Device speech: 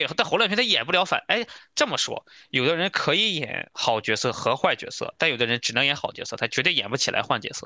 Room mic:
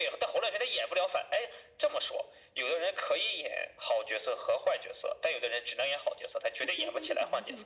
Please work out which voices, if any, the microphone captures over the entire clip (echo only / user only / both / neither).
both